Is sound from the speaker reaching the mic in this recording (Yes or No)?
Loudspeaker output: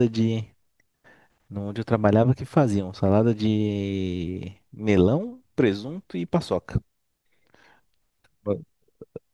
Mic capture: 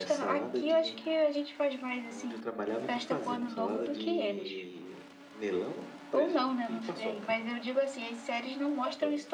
Yes